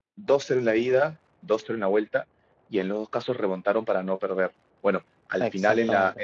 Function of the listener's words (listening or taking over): listening